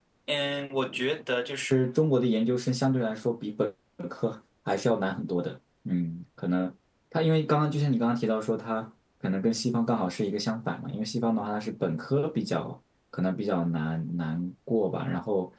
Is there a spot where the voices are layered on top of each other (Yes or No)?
No